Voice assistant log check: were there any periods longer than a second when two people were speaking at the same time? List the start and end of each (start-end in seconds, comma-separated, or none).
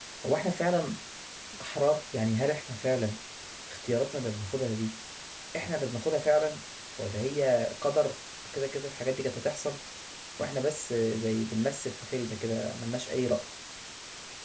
none